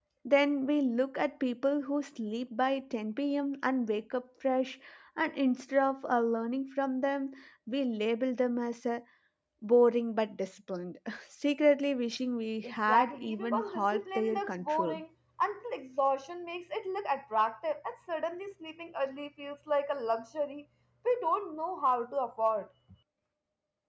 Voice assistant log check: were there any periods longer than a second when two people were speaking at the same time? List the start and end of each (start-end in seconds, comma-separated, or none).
12.6-15.0